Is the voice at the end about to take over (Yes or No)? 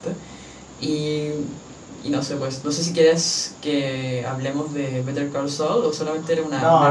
Yes